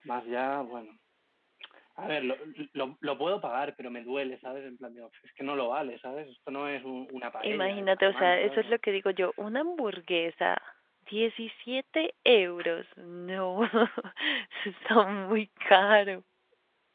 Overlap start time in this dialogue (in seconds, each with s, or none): 7.4 s